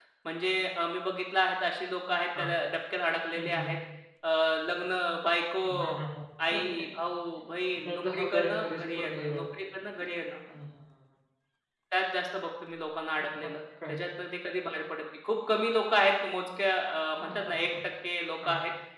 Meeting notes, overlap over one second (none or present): present